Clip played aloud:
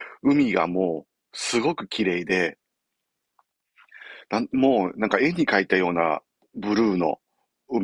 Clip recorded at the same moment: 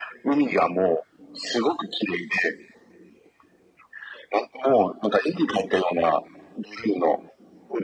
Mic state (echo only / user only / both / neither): echo only